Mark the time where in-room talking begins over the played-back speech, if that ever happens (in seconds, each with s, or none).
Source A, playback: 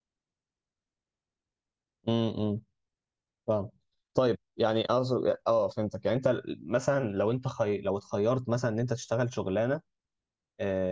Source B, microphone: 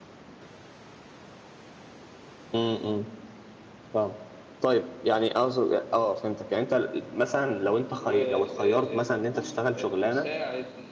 8.0 s